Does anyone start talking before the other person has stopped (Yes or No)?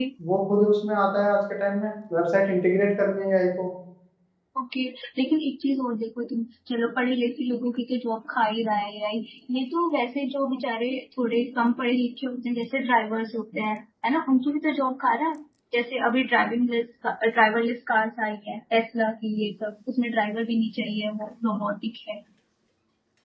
No